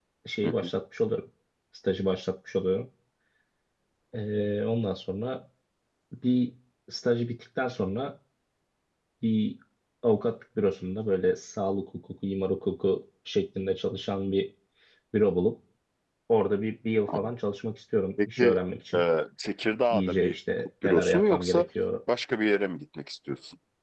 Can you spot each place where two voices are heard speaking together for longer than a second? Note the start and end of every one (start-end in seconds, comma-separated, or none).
19.9-21.6